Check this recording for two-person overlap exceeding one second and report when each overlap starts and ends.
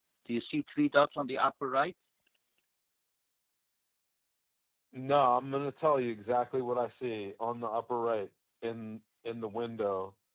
none

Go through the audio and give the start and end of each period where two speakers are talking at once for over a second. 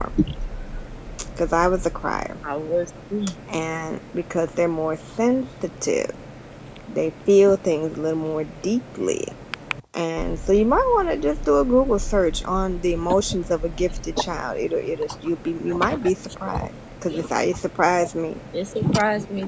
none

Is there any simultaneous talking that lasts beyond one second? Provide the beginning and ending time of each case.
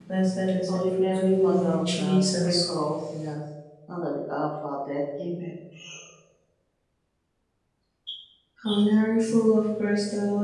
0.7-2.6

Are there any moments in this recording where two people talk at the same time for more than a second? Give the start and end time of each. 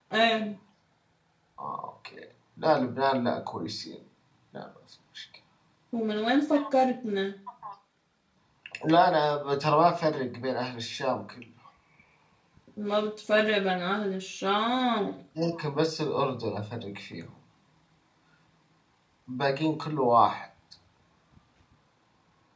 none

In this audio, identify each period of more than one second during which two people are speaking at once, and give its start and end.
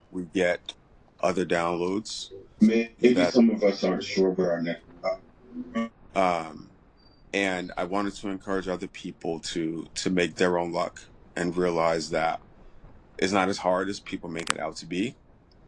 none

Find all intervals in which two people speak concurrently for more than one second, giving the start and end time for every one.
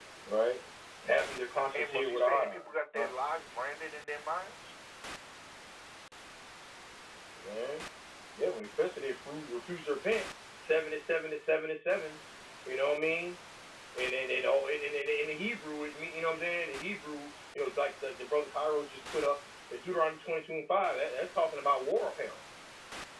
1.7-3.1

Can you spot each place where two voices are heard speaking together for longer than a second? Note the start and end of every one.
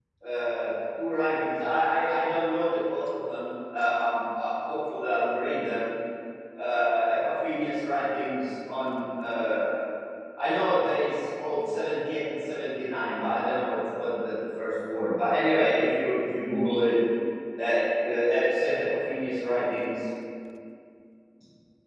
none

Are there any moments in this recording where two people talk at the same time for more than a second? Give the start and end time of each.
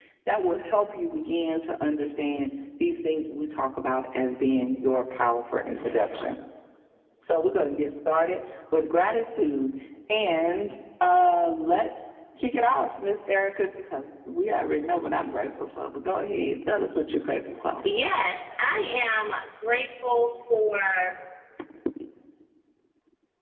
none

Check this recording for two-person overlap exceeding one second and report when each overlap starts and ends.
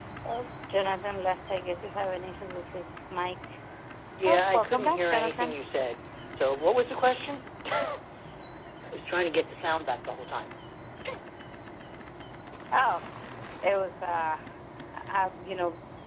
4.2-5.5

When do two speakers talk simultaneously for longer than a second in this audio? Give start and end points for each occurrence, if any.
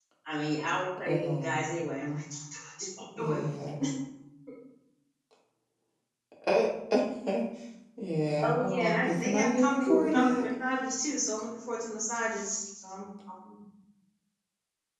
8.4-10.4

